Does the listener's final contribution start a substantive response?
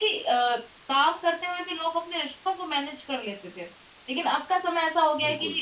No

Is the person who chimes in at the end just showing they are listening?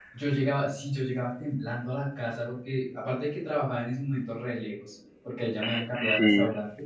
Yes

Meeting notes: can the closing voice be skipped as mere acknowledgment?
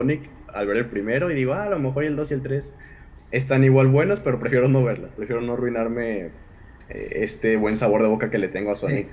Yes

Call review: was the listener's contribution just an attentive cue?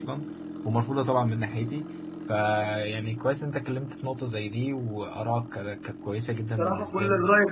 No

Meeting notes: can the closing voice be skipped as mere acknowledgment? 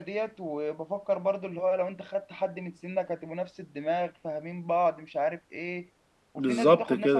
Yes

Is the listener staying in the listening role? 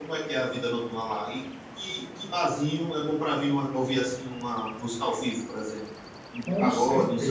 No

